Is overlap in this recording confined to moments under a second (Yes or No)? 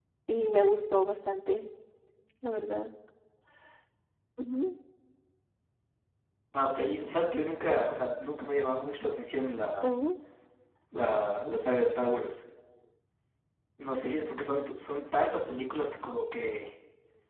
Yes